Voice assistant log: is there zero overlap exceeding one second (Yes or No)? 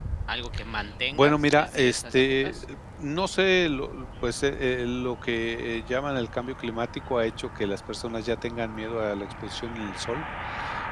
No